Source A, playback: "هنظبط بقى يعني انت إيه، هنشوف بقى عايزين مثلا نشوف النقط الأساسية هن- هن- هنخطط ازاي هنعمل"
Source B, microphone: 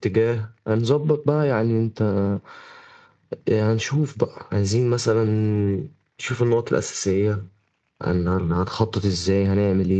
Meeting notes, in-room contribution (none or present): none